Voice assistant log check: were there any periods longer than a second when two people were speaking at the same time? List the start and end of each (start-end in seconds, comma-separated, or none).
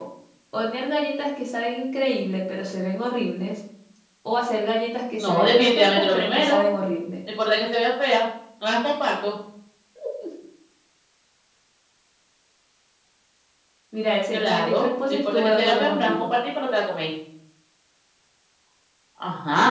5.2-6.6, 14.3-16.1